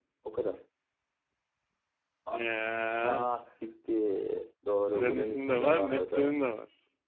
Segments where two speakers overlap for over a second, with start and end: 4.9-6.4

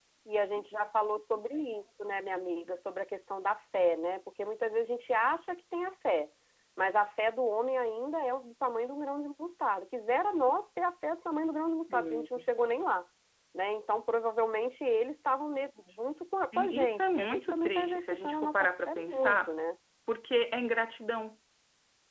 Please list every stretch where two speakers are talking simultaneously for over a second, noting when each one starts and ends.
16.6-19.5

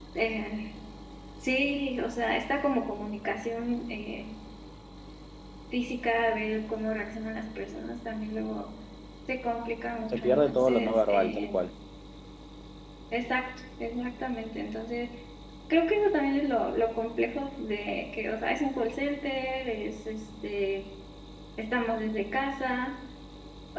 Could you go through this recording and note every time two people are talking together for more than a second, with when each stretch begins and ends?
10.1-11.6

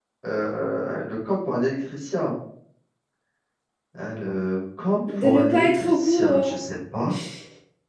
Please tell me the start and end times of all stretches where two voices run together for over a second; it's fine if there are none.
5.2-6.6

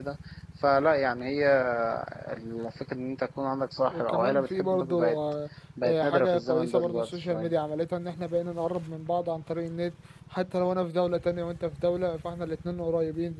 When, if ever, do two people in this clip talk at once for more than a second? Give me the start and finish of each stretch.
3.9-5.2, 5.8-7.5

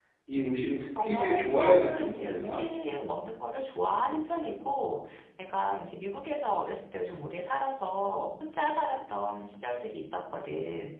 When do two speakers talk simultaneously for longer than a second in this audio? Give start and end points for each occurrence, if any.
1.0-2.6

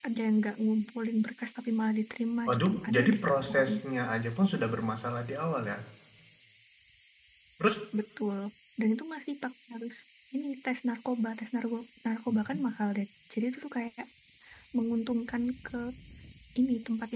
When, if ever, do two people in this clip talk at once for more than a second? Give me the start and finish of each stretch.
2.5-3.8

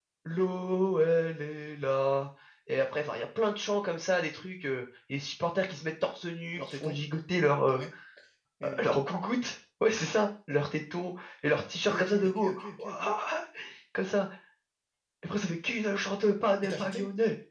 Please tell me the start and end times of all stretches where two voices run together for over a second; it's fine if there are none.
11.7-13.0

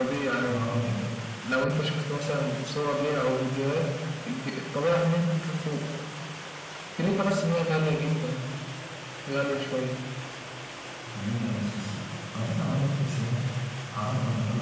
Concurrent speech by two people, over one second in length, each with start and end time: none

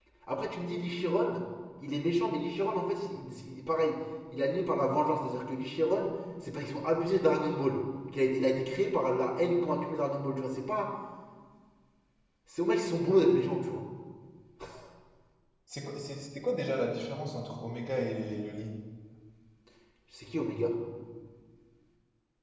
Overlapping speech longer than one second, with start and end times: none

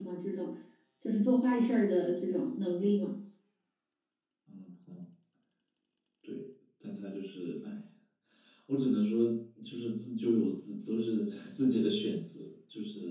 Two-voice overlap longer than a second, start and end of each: none

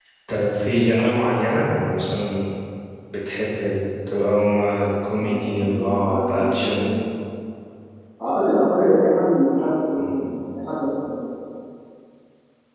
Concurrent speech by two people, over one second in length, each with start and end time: 5.2-6.9

